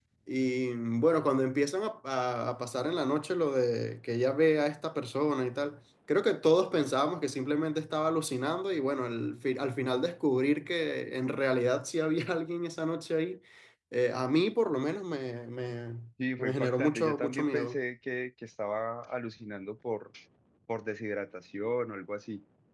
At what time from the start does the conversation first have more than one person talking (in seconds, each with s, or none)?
16.4 s